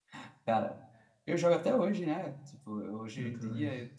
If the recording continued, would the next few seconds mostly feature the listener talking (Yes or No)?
No